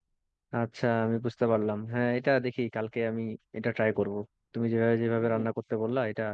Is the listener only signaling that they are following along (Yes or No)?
Yes